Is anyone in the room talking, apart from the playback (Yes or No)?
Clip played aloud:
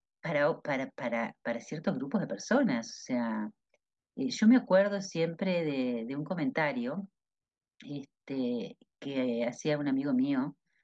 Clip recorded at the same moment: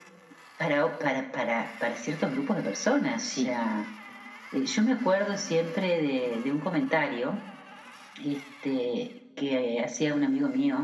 Yes